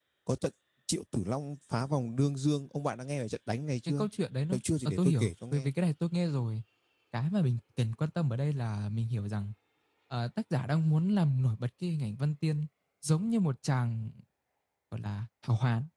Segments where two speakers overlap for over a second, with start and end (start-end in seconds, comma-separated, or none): 4.5-5.7